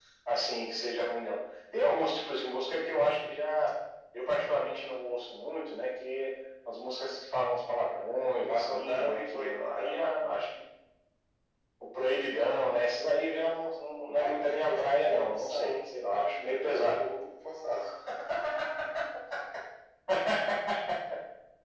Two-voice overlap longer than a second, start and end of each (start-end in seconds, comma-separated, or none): 8.3-10.1, 14.2-17.0